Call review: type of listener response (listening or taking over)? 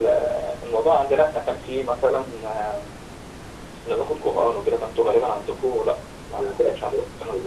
taking over